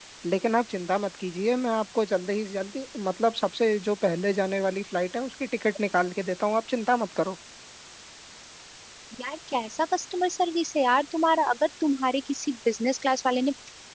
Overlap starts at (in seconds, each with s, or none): none